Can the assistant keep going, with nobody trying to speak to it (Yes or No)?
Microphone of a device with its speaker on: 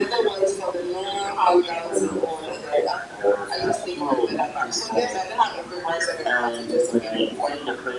Yes